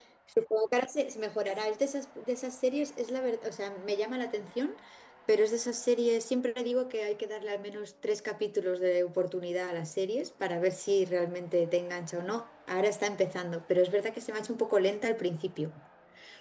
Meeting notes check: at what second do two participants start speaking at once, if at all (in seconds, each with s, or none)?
none